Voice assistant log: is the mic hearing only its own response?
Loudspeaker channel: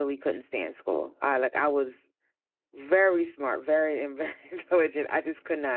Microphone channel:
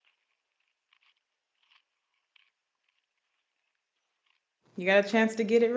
No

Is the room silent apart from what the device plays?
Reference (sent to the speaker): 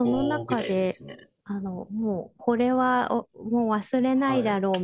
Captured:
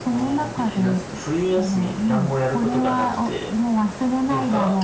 No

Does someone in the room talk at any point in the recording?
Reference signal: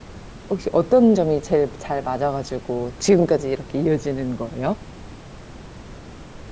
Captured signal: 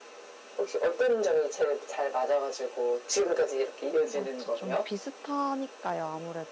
Yes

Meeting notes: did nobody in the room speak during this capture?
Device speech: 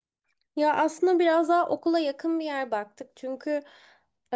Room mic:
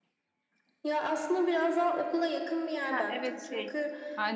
No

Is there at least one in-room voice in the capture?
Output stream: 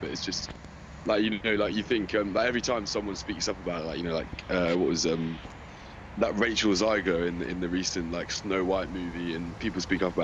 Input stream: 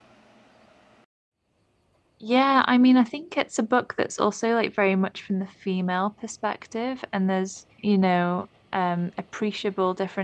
Yes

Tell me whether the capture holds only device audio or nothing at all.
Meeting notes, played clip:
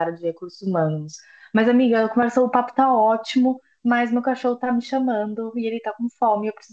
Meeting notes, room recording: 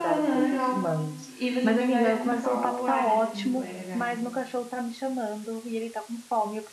No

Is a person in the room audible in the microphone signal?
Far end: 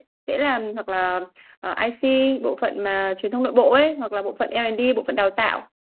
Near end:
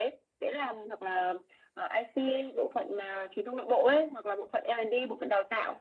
No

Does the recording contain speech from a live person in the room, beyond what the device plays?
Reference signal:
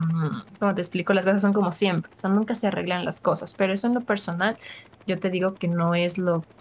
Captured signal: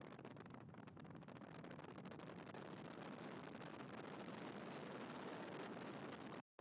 No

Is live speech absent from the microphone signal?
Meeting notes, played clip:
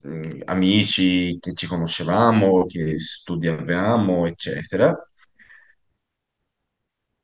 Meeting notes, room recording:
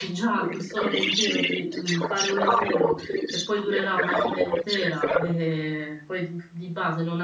No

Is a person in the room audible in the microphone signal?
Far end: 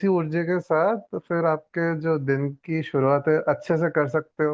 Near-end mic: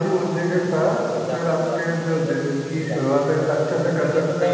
Yes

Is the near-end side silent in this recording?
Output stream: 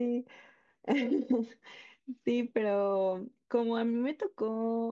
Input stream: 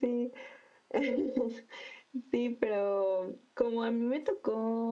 Yes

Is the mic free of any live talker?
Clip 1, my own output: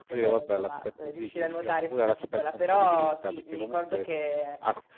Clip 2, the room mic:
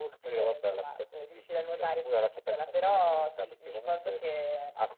Yes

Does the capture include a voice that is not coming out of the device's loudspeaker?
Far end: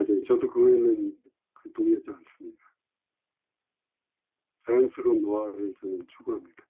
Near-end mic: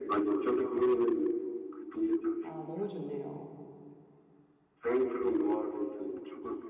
Yes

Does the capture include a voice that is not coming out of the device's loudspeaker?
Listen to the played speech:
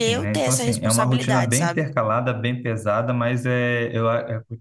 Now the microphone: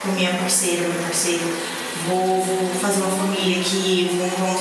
Yes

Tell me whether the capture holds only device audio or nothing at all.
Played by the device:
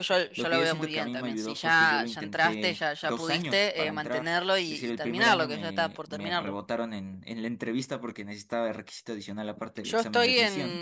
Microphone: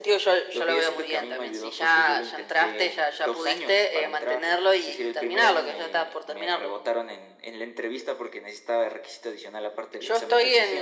Yes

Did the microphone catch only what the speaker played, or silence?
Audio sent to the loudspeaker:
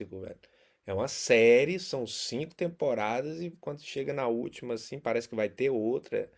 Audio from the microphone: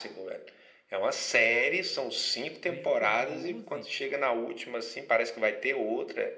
No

